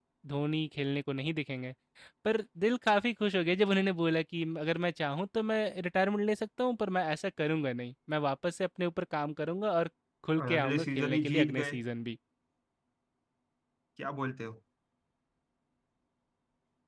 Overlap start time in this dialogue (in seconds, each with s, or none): 10.4 s